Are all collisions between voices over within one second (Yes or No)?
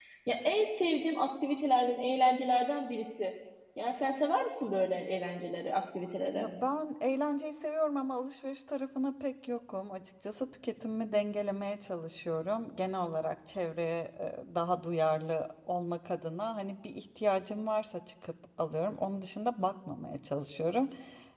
Yes